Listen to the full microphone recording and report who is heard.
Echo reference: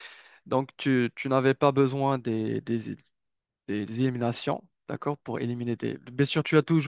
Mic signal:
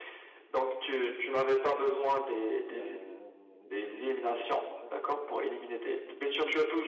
both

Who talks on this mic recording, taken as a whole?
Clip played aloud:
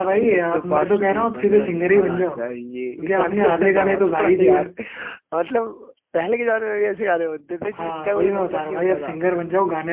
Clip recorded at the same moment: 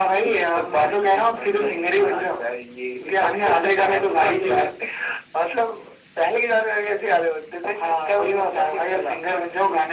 echo only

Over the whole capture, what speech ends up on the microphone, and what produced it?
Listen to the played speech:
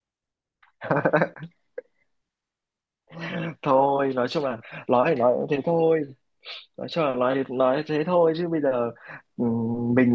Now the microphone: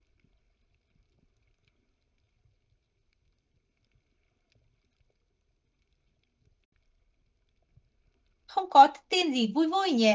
user only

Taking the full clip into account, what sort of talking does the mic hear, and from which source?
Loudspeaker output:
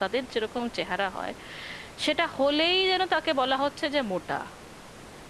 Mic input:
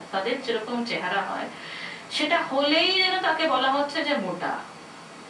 echo only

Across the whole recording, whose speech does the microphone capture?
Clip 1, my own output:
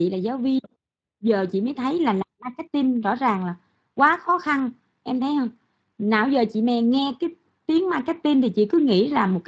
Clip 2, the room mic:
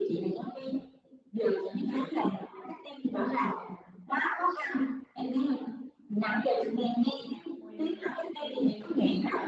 both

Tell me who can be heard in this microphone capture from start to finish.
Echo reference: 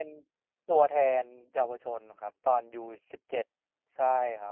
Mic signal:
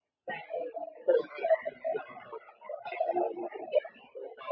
echo only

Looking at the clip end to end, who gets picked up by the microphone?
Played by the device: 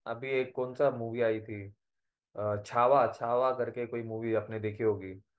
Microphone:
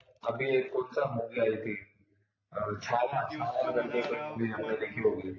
both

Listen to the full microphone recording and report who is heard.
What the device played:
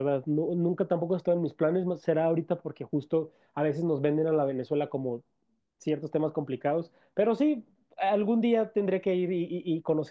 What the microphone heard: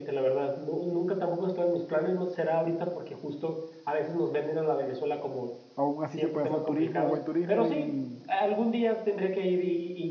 both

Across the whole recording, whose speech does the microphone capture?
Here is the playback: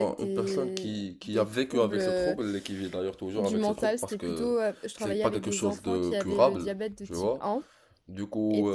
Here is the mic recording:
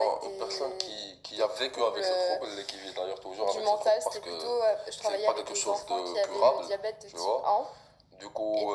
echo only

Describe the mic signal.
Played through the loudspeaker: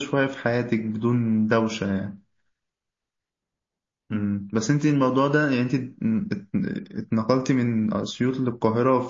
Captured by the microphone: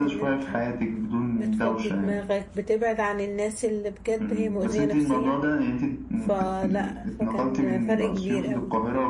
both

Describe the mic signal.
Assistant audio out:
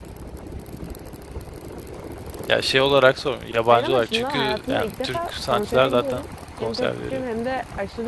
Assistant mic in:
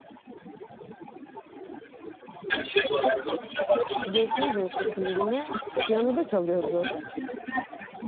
both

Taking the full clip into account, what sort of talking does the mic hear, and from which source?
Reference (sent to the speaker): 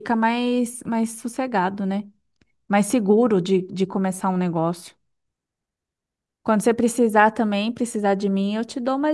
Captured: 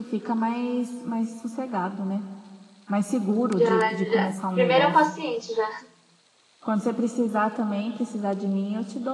both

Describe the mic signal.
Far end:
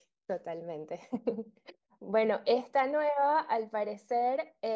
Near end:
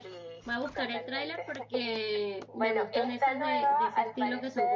both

